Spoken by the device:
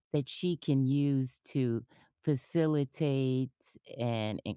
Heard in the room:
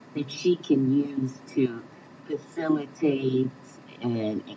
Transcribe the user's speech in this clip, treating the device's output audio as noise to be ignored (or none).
none